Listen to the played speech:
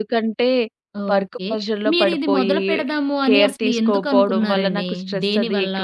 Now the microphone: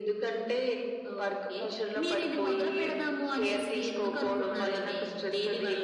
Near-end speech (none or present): none